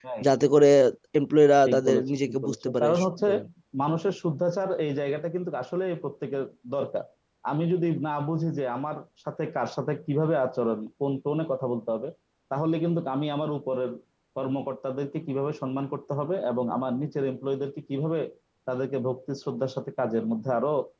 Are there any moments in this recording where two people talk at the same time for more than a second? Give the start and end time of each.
1.6-3.2

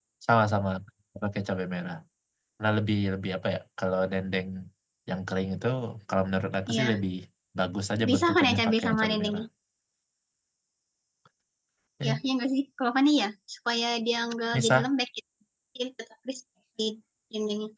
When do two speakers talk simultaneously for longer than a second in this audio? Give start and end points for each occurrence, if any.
8.1-9.4

